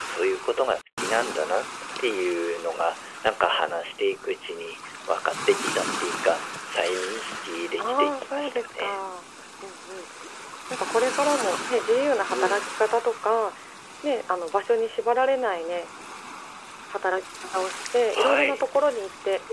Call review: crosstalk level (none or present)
present